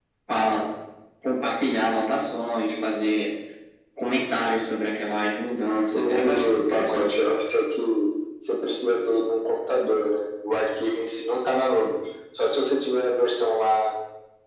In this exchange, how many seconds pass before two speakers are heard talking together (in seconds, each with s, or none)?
5.9 s